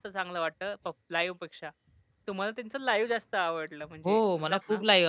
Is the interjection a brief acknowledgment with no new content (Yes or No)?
No